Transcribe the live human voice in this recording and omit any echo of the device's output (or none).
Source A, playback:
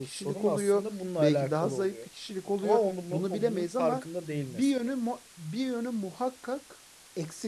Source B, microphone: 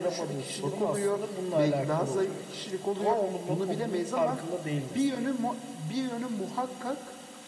none